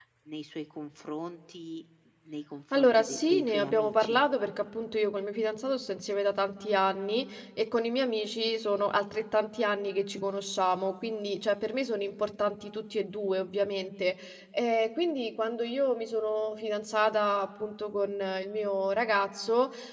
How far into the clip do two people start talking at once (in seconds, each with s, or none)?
2.7 s